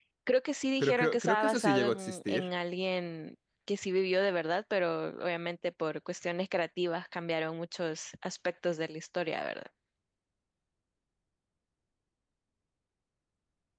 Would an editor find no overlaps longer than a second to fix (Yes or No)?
No